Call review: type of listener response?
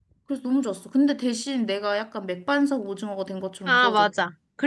taking over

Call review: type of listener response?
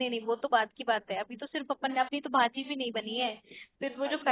listening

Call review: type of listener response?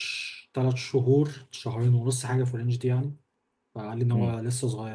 listening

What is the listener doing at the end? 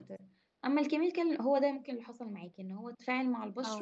listening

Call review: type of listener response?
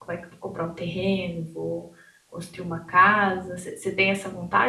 taking over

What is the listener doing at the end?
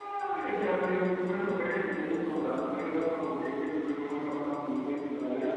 taking over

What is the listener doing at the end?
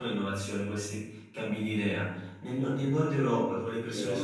listening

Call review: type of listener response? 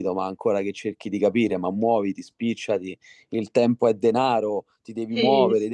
listening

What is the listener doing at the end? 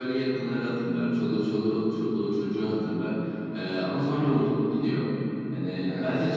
listening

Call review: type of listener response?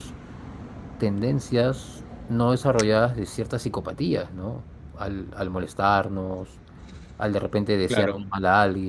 listening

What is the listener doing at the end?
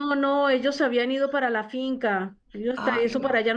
listening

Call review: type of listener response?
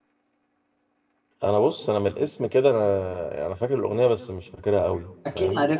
taking over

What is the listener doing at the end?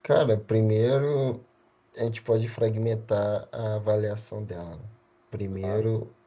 listening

